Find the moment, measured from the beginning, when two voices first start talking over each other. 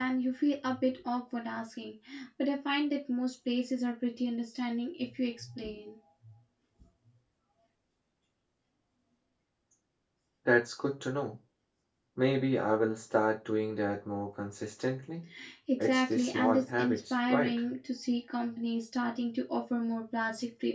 15.8 s

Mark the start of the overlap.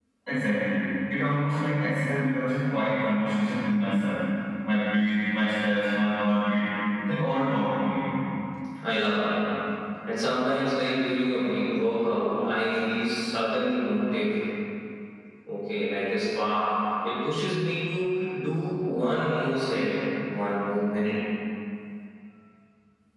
none

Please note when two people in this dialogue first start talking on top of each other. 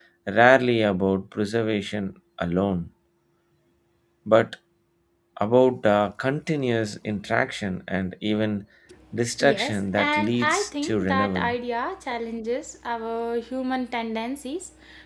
9.4 s

